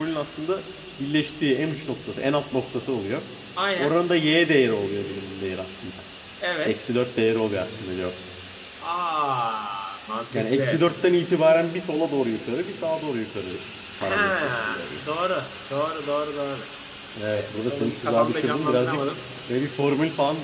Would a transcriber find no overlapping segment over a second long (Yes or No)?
No